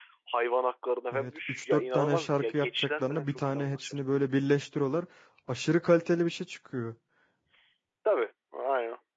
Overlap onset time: 1.1 s

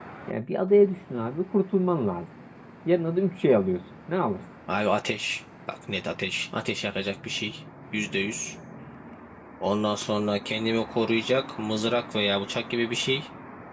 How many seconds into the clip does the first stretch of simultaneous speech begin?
none

